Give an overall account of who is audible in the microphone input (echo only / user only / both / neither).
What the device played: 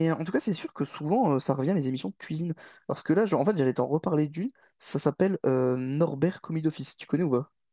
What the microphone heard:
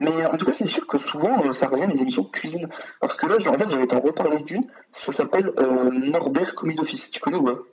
echo only